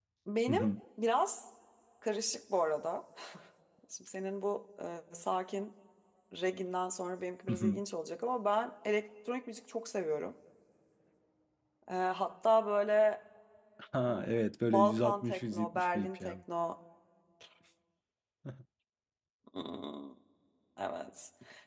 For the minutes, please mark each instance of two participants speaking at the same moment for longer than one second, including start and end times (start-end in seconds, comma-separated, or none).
14.7-16.4